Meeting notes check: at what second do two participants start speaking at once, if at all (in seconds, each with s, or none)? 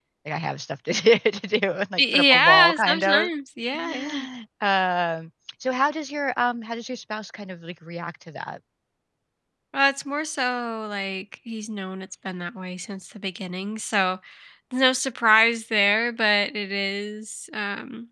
2.0 s